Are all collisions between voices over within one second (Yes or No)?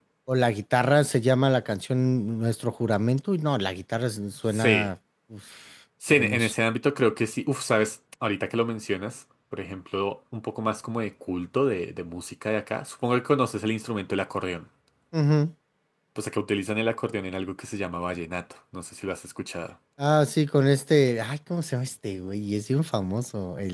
Yes